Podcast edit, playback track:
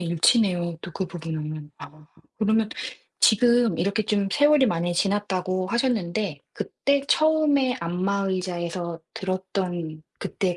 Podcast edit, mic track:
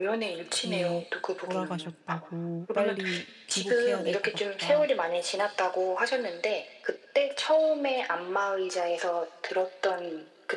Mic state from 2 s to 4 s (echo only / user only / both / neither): both